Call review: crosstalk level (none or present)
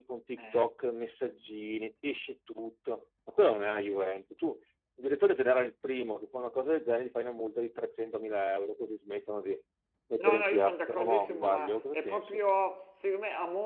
present